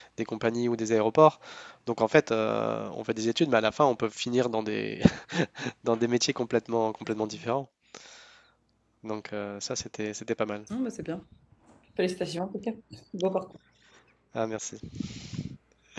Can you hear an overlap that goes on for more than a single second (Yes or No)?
No